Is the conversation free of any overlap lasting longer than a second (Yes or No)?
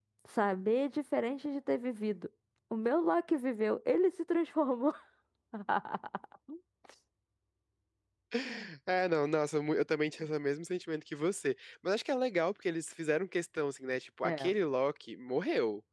Yes